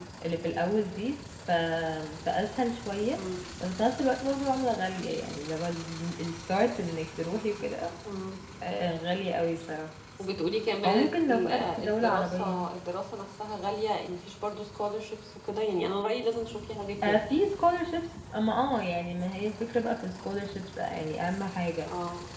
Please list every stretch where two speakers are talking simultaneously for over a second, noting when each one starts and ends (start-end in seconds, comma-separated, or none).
10.8-12.7